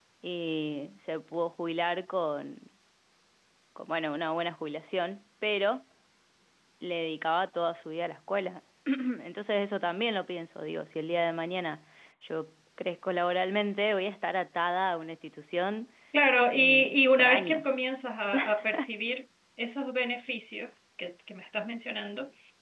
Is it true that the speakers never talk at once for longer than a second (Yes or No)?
No